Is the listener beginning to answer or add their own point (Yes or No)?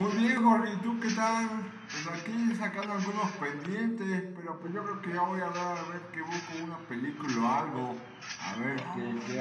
Yes